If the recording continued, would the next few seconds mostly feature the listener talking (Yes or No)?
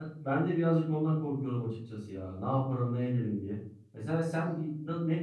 No